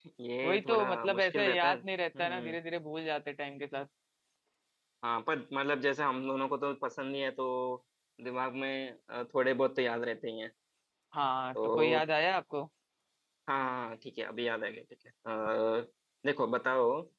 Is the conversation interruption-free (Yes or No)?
No